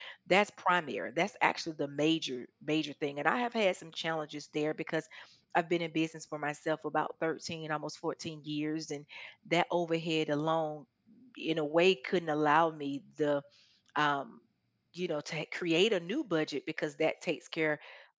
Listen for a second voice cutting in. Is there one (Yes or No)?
No